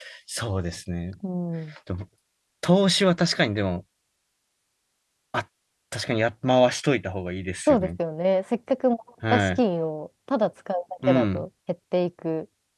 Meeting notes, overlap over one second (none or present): none